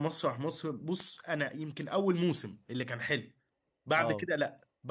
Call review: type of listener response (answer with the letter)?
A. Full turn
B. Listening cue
B